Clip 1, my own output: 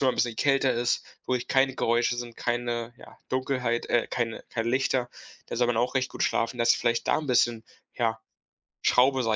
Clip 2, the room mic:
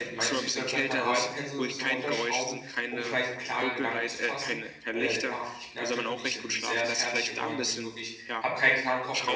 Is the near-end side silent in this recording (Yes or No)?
No